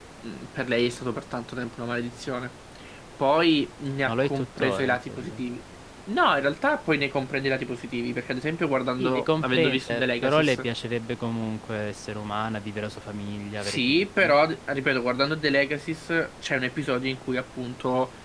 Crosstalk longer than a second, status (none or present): present